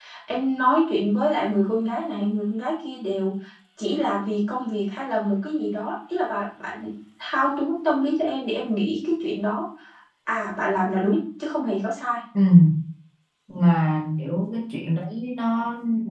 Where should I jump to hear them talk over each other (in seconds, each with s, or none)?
none